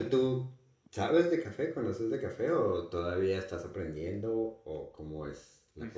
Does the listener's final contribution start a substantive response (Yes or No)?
Yes